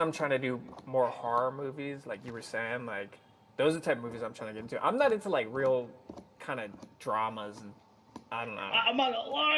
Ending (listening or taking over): taking over